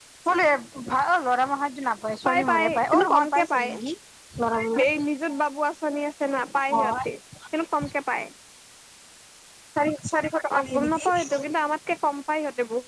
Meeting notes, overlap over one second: present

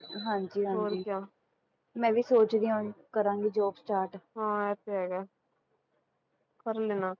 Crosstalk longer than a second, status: none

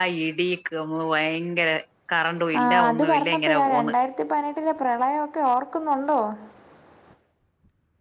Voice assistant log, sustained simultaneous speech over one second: present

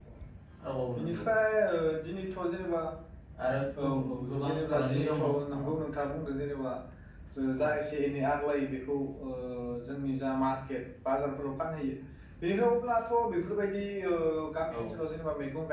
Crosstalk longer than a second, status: present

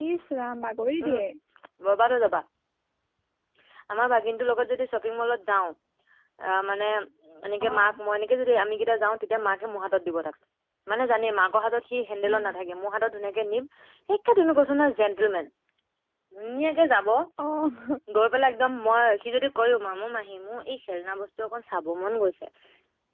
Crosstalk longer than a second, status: none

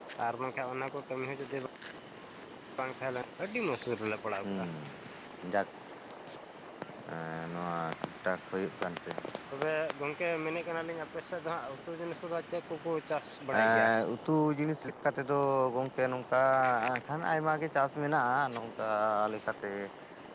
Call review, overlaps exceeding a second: none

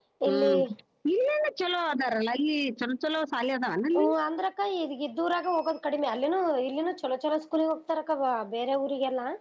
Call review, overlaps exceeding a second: none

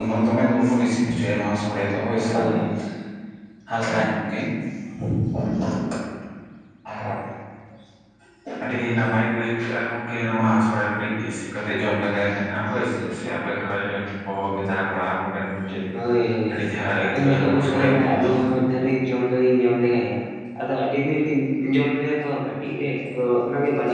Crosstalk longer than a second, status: present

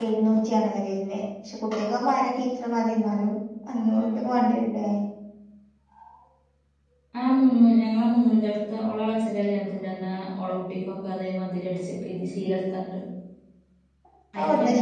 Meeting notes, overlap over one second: none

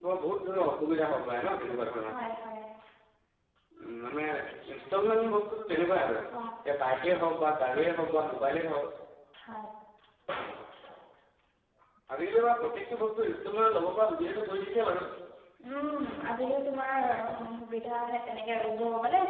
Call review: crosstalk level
none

